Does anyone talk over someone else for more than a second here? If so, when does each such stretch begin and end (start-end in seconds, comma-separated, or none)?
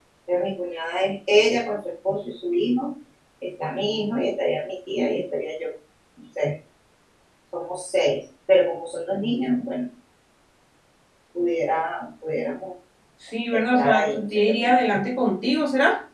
13.5-15.0